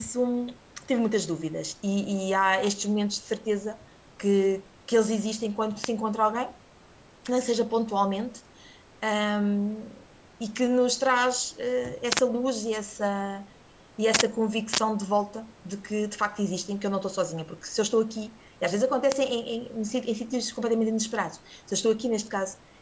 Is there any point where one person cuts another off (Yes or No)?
No